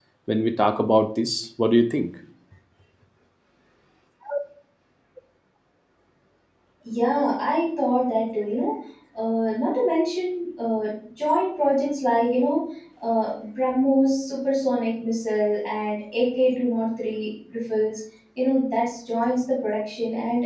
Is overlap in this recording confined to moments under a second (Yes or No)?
Yes